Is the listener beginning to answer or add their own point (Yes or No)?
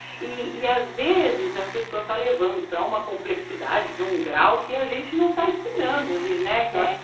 No